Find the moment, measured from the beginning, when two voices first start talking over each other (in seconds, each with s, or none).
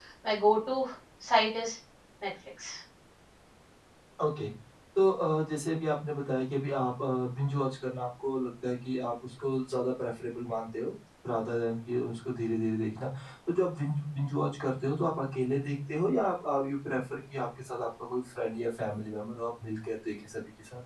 none